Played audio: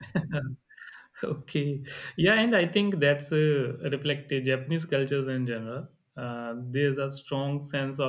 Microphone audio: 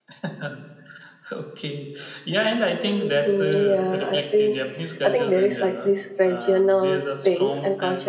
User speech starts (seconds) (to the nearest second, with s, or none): 3 s